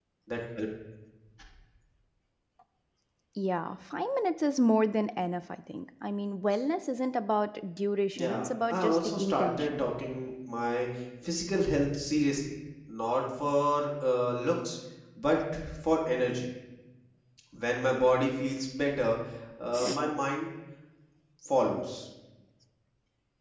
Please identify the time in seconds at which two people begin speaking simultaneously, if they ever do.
8.2 s

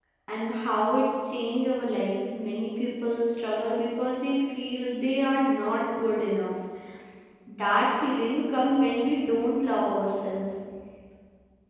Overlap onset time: none

